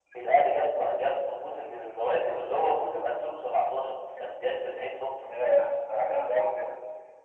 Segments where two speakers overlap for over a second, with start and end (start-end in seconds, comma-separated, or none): none